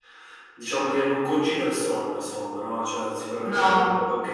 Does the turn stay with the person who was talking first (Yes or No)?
Yes